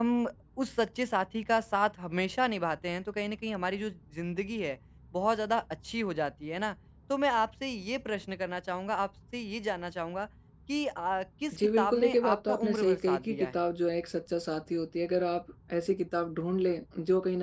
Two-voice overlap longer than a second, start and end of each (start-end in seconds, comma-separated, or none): 11.8-13.5